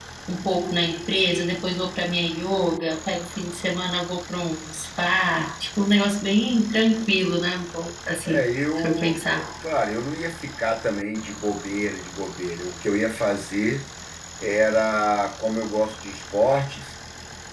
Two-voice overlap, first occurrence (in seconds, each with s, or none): 8.2 s